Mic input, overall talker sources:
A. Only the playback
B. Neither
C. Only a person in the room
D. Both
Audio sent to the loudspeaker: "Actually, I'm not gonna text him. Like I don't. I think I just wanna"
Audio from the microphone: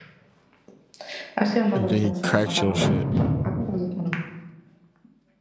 D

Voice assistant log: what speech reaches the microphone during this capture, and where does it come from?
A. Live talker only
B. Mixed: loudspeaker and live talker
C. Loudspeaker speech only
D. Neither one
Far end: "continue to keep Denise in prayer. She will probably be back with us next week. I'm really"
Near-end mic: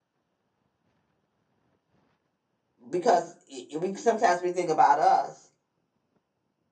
A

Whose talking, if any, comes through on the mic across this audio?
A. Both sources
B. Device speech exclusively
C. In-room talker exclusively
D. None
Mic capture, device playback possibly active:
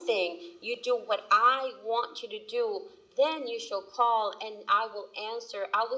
B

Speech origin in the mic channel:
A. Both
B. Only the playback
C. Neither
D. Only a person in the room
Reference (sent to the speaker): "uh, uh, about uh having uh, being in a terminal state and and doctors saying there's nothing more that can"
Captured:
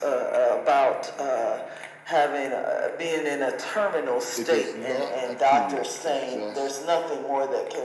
A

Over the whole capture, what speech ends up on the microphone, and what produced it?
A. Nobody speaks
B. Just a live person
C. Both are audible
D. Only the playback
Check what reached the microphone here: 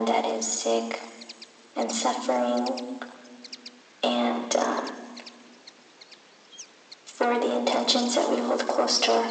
D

